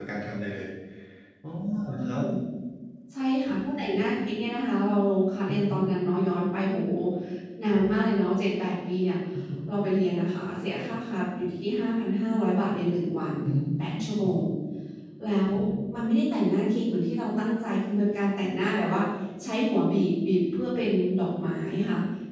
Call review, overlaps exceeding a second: none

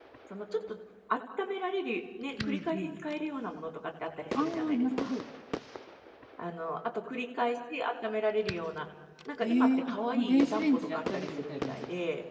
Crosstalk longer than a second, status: present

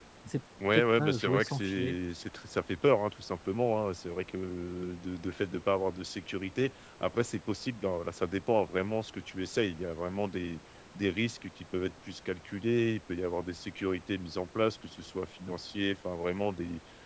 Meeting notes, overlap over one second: present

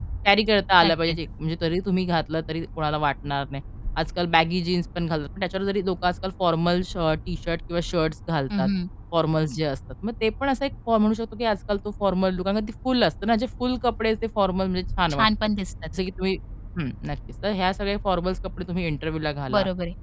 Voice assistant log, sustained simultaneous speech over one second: none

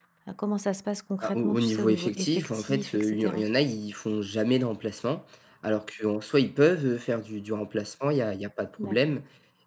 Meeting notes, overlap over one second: present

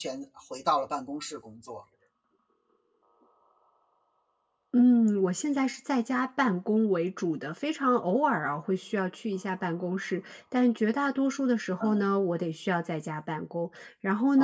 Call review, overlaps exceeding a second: none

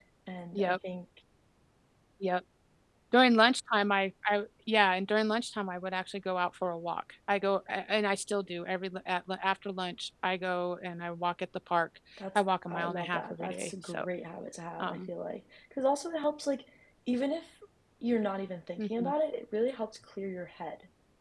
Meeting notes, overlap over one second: present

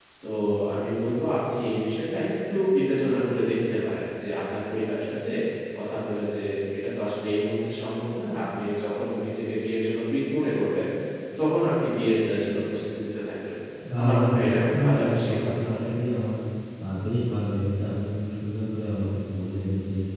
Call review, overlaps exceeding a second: present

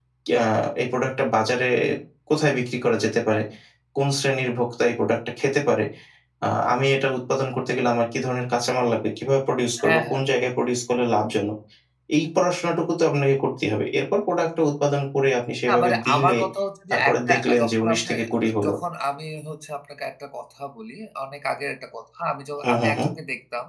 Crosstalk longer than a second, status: present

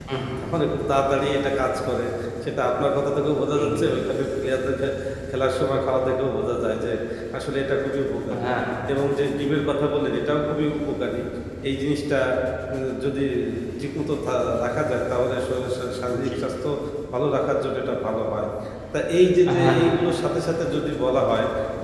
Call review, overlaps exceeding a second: none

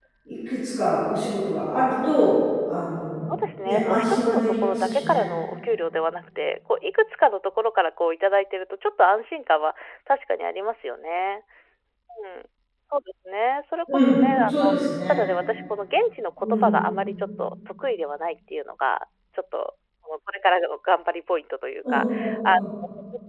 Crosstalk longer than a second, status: present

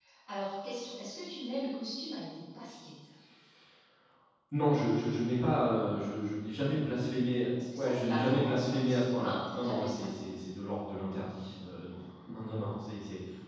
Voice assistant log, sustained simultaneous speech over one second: present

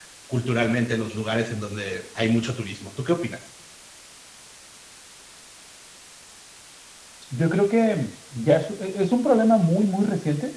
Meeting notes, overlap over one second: none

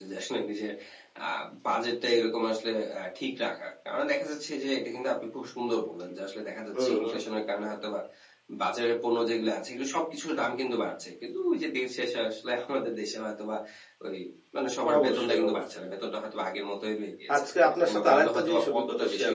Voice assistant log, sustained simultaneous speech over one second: present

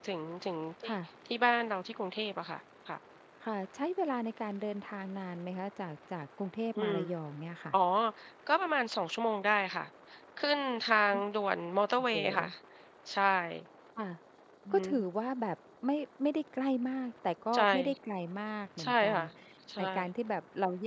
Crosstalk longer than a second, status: none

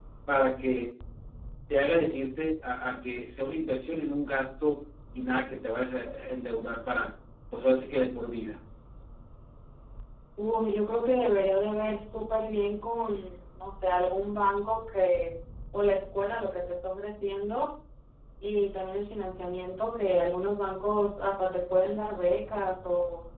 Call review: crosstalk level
none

